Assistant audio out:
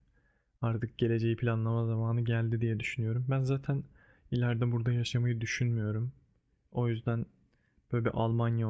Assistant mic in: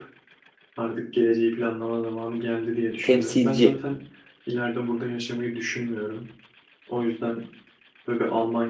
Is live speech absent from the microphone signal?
No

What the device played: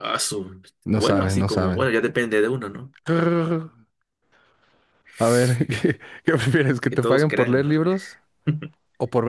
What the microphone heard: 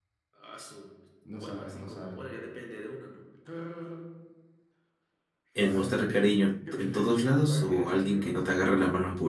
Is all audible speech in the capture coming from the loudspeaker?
No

